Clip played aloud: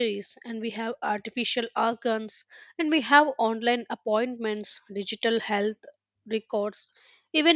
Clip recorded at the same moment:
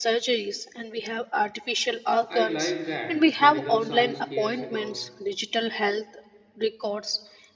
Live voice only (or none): I like that medical science cares about